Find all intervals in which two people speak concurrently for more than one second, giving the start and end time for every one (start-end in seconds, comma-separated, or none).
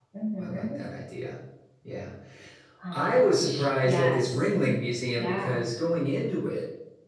2.9-4.5